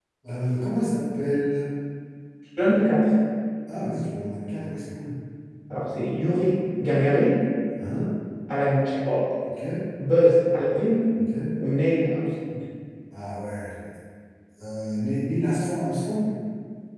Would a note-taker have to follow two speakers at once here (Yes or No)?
No